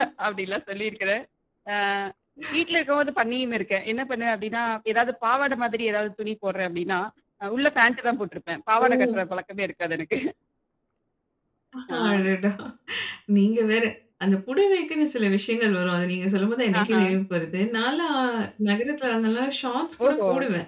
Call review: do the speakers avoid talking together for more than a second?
Yes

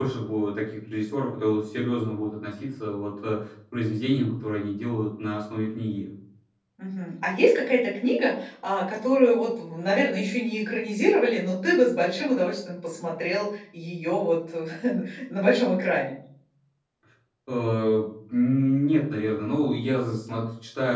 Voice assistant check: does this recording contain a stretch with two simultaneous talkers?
No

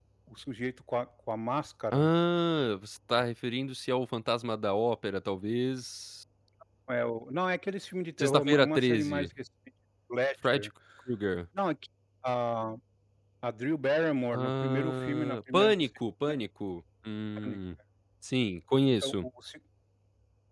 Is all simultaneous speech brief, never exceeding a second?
No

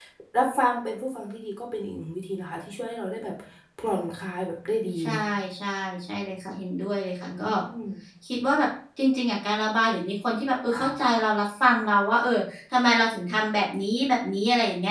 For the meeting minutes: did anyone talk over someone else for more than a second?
No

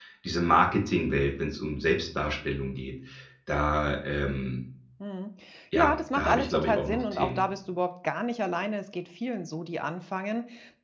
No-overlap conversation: No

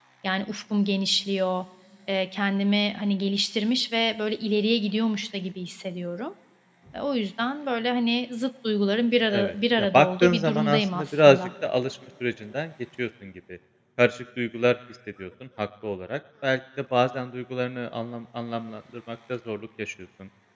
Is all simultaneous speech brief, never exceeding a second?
No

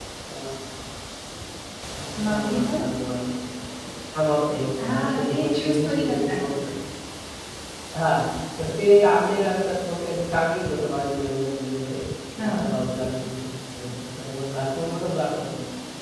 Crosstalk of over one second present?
Yes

